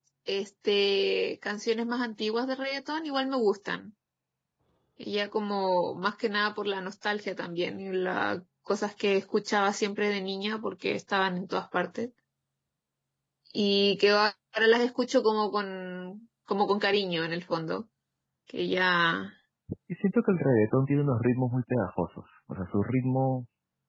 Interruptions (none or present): none